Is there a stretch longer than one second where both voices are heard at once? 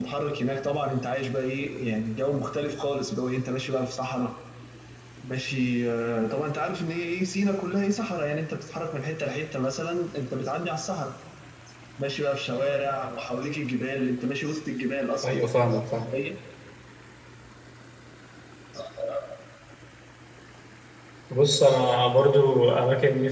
No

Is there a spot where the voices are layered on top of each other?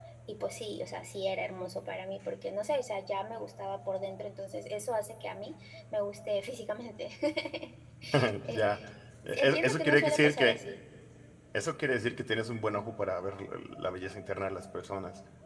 Yes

